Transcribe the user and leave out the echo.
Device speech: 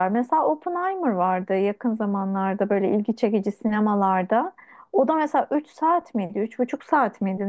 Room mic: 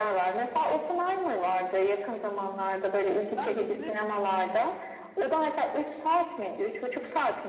Ben dizileri

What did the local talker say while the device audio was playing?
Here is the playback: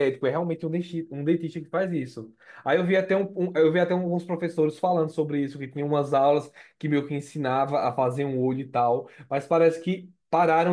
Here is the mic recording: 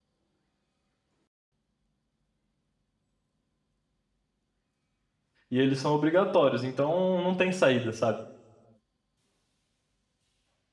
E eles são obrigatórios, então não tem saída, sabe?

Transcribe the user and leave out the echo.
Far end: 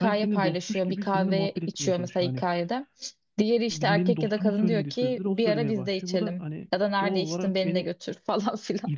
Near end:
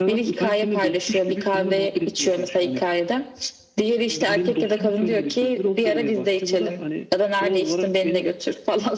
none

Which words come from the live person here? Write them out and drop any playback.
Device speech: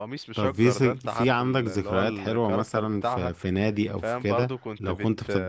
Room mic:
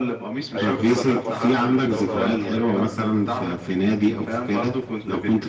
ايام الصحة بقى كنا بنعمل دورة رمضانية

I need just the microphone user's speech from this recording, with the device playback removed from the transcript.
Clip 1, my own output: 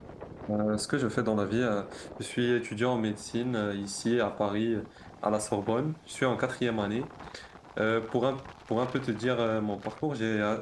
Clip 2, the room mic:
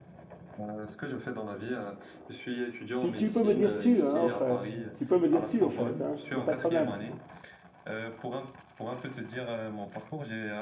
Tu, tu peux me dire tu, hein, au fait. Tu peux me dire tu, au fait, hein. Il n'y a pas de problème.

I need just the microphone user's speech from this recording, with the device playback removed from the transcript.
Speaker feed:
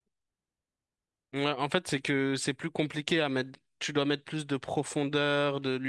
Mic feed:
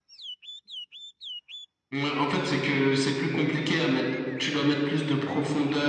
none

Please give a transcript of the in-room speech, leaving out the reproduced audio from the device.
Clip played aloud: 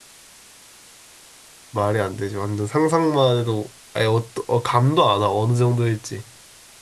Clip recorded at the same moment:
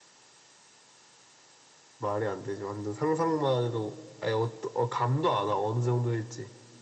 none

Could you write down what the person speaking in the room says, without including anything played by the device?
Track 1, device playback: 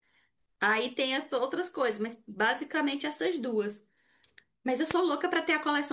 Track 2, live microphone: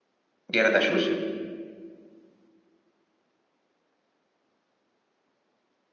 E era da Xuxa?

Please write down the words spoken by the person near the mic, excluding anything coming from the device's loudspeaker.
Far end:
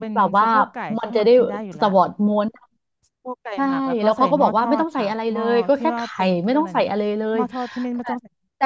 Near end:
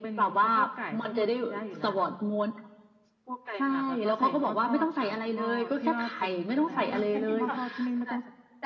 ไม่อร่อยค่ะ

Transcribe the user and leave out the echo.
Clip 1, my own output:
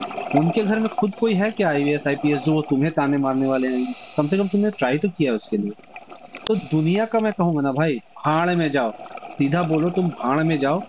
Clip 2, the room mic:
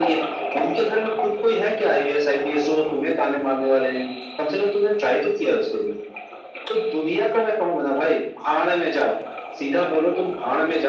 none

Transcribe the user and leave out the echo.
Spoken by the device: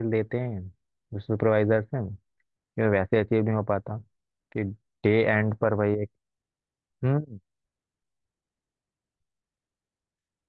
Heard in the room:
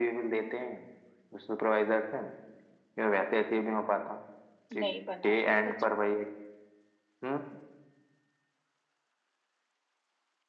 नहीं बना सच में।

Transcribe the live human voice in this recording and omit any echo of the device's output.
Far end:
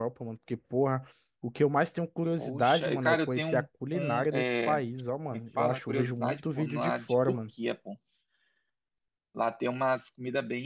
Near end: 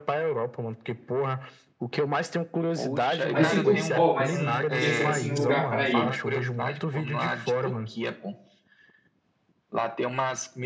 Mas se tu, ó, mas se- pensando assim em lugar para ir,

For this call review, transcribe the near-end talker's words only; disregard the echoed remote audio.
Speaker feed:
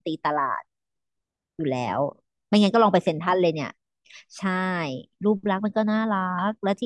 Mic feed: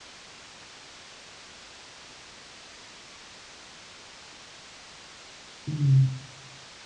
อืม

